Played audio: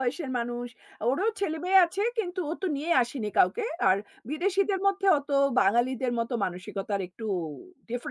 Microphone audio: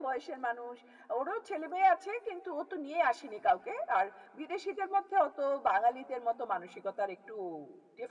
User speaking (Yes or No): No